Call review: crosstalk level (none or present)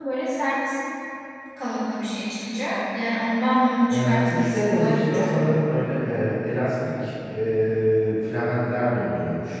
present